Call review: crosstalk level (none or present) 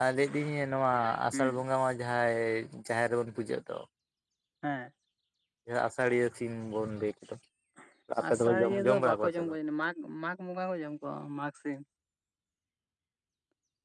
present